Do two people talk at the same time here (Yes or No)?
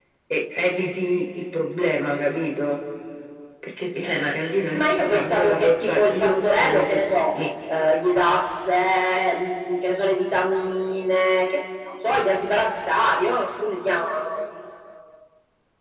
Yes